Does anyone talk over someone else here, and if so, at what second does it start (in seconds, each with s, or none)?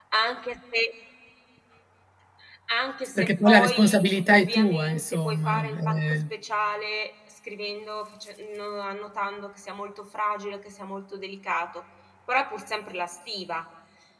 3.2 s